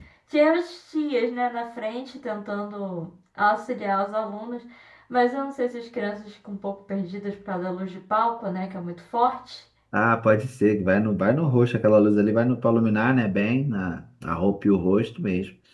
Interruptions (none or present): none